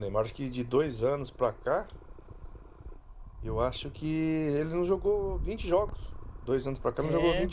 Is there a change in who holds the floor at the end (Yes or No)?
No